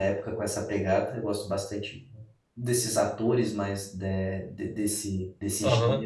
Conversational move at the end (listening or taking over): taking over